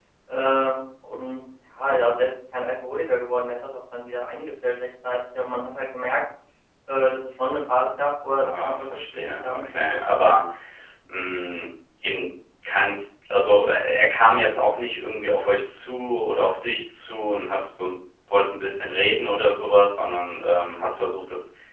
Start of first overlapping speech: 8.3 s

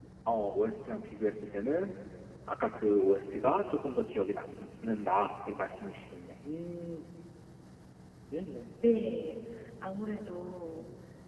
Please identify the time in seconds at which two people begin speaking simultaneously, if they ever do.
none

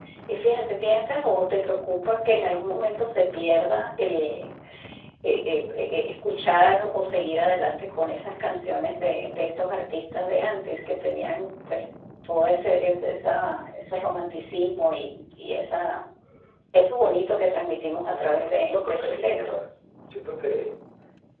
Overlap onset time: 18.1 s

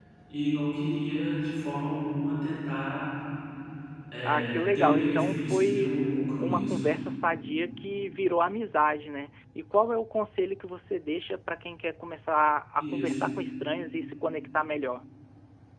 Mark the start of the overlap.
4.2 s

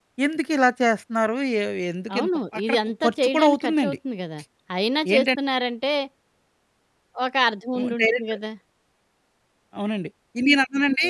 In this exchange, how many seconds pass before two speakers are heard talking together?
2.1 s

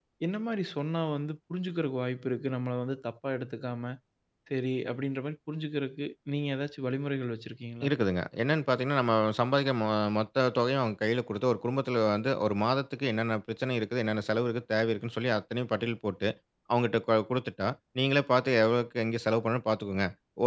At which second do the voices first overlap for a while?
none

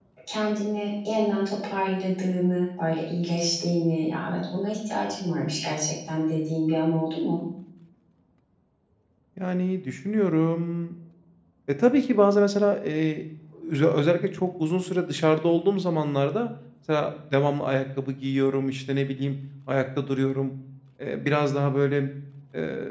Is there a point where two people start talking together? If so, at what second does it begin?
none

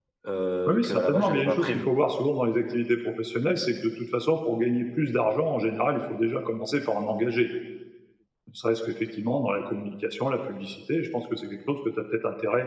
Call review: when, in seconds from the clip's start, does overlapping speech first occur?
0.7 s

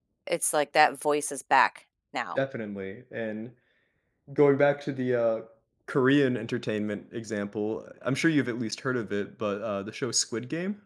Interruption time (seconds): none

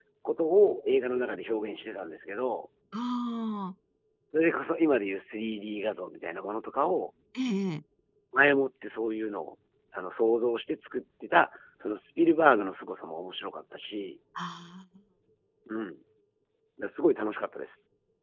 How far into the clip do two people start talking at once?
none

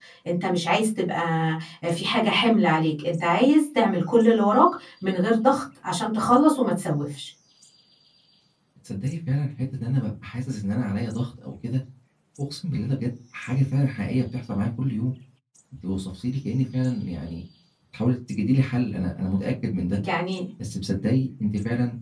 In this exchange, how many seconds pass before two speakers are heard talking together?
none

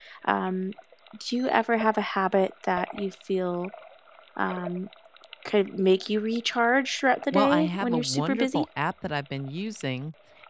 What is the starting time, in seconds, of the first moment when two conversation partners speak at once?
7.3 s

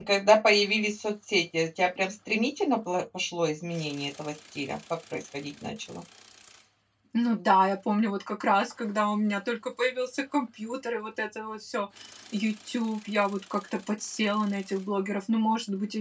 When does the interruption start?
none

